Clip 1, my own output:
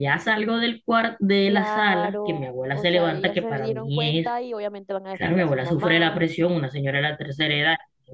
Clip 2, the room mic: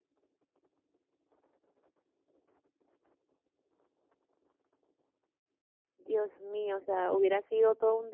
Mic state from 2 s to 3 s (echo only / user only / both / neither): neither